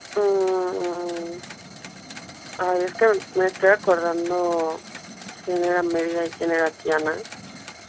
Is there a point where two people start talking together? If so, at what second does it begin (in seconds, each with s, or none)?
none